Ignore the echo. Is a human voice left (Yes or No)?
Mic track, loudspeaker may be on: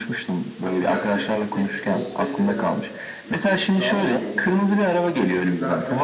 Yes